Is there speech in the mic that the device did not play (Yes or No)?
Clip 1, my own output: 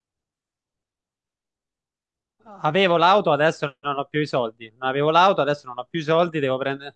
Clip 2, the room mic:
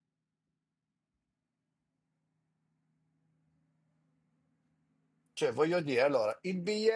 Yes